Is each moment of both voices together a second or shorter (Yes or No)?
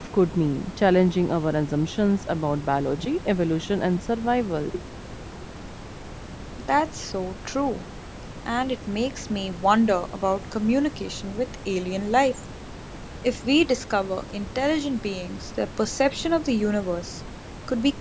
Yes